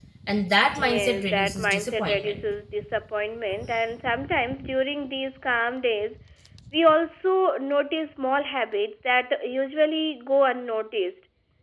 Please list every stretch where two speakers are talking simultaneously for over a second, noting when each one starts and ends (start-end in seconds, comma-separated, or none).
0.8-2.4